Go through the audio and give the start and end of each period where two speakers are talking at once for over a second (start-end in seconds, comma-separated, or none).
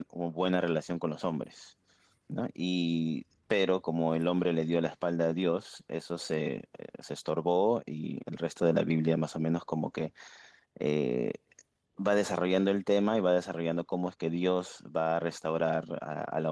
none